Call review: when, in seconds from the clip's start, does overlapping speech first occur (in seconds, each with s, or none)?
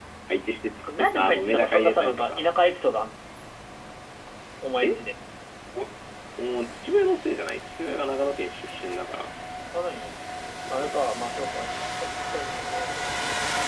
0.9 s